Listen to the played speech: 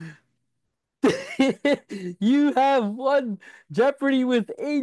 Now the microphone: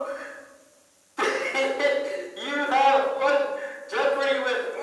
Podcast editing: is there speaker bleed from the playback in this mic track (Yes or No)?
Yes